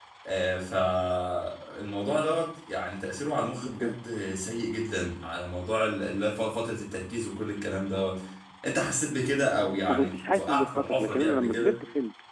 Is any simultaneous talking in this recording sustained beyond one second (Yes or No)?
Yes